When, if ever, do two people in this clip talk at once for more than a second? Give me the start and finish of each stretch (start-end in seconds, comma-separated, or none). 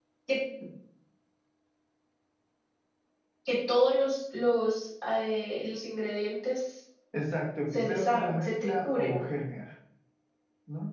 7.7-9.2